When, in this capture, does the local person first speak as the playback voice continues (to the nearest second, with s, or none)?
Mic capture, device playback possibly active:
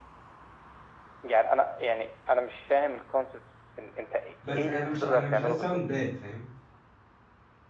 4 s